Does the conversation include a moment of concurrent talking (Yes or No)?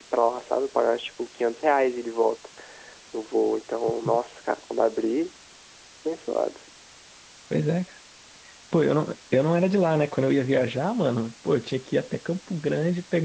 No